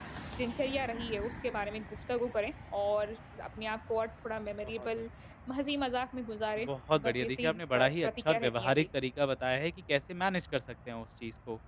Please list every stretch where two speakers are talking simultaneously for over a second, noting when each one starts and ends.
7.0-8.9

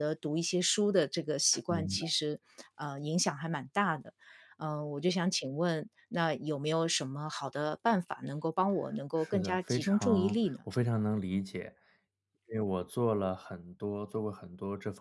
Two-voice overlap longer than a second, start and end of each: 9.2-10.4

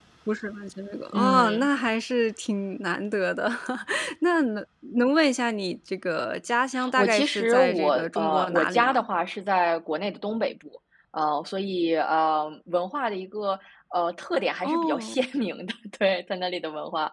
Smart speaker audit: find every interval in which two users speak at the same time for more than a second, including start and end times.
7.0-9.1

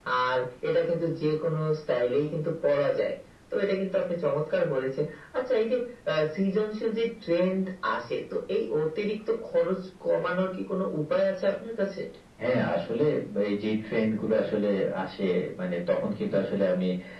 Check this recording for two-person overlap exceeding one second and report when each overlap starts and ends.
none

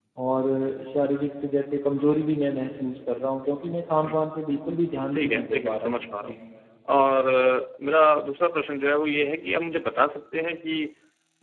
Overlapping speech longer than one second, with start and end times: 5.1-6.4

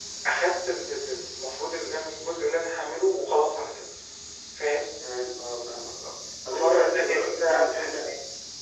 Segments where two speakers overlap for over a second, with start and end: 6.6-8.1

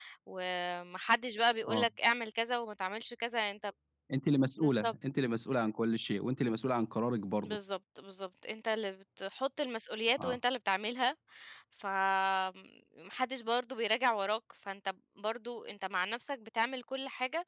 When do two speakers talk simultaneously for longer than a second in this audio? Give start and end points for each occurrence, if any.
none

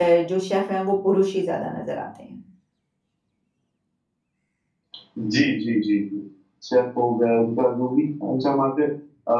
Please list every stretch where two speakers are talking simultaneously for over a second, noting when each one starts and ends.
none

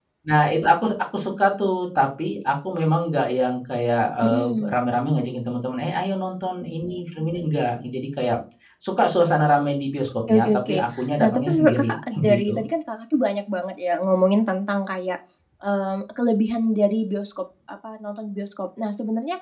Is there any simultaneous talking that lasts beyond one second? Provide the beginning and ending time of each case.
11.2-12.6

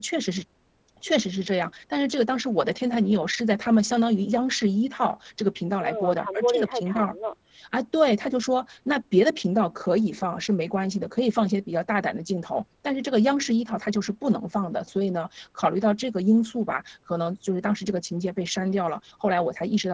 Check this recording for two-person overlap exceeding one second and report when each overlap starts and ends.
5.8-7.2

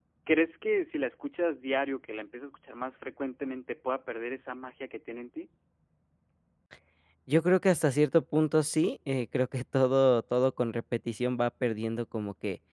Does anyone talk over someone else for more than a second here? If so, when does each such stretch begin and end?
none

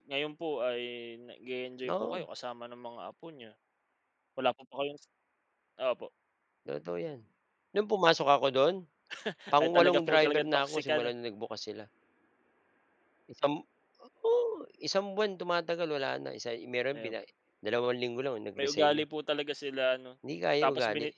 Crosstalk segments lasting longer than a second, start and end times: 9.6-11.1

